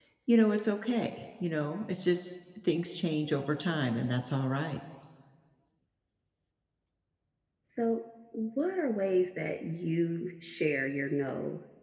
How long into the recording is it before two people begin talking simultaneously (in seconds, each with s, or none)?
none